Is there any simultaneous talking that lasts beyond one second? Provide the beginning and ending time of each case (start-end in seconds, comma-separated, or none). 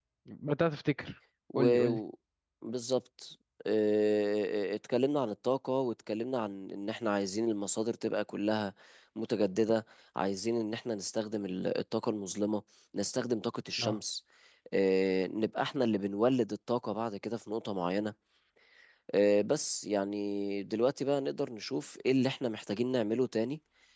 none